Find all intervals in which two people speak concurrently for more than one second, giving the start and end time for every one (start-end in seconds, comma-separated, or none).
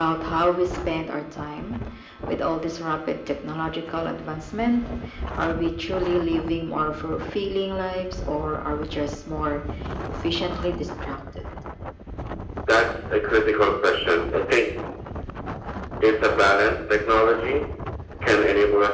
none